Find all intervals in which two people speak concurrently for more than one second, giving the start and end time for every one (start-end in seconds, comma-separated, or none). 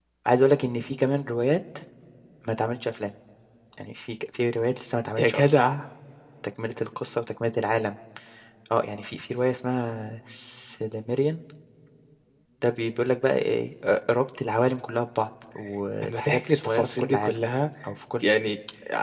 16.0-17.4